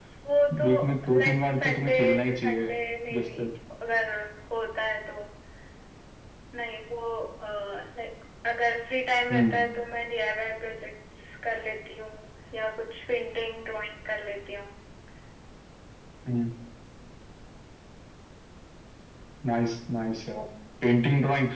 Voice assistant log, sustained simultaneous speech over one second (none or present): present